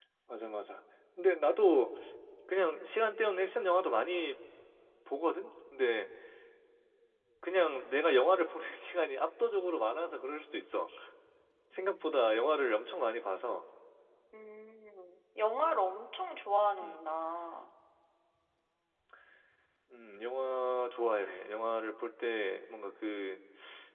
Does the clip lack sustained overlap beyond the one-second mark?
Yes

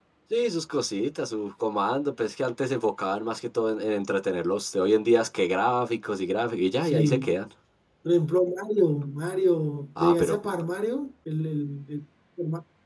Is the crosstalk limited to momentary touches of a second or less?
Yes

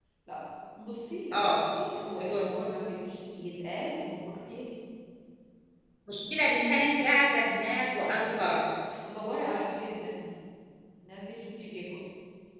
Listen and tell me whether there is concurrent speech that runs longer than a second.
No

